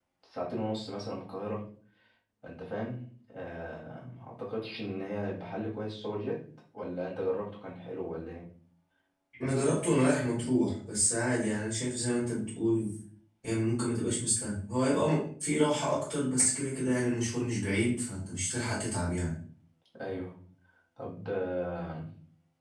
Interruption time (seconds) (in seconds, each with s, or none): none